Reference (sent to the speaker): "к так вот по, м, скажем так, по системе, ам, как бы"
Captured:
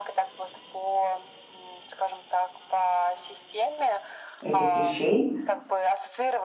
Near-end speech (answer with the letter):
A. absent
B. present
B